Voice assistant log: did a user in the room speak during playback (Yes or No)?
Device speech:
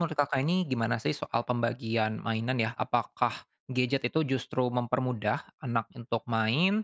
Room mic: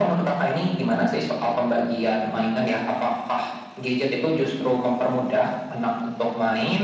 No